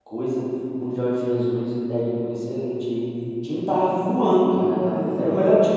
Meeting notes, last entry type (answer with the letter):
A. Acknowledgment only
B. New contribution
A